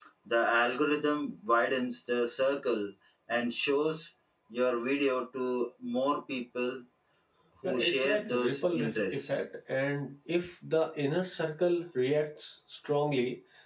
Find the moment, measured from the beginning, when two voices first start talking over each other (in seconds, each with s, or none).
7.6 s